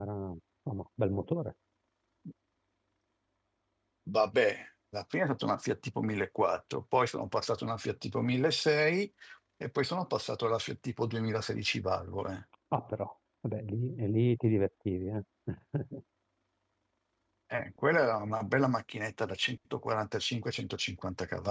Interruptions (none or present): none